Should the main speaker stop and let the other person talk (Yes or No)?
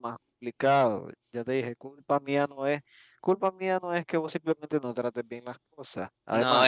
Yes